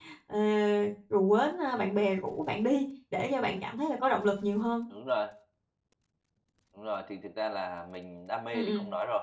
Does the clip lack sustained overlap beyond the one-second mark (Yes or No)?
Yes